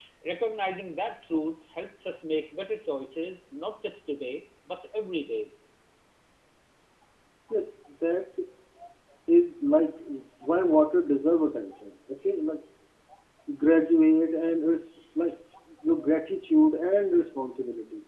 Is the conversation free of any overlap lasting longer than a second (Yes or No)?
Yes